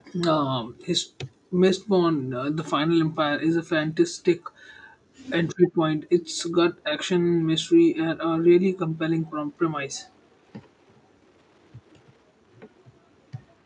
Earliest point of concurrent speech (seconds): none

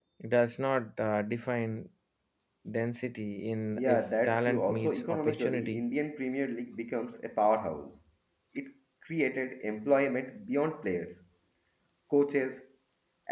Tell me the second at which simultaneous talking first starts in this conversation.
3.8 s

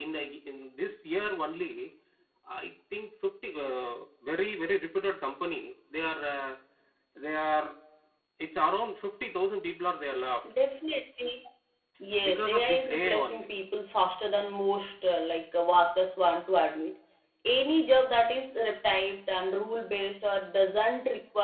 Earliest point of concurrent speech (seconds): 12.3 s

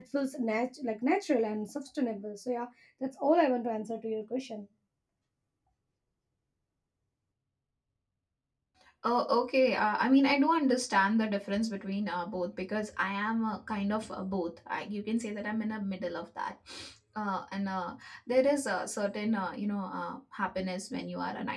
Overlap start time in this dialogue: none

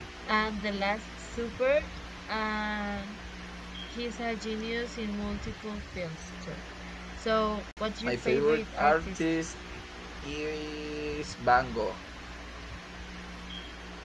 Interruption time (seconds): 8.0 s

